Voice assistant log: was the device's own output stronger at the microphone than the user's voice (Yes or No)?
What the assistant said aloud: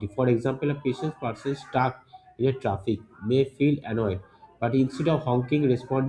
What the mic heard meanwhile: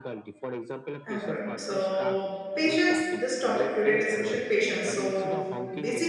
No